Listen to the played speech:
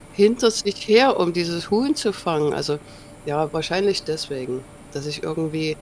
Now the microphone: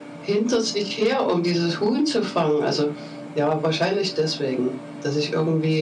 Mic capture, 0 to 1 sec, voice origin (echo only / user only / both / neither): echo only